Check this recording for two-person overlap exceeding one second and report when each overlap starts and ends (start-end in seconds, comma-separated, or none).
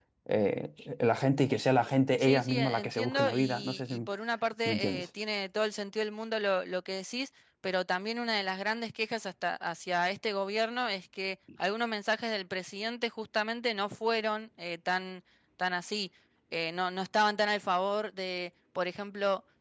2.2-3.9